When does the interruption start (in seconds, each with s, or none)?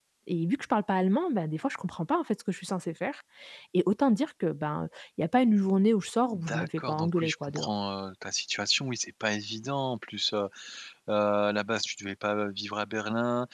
6.3 s